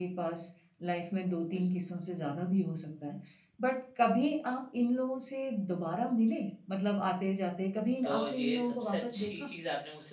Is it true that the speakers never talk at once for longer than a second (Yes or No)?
No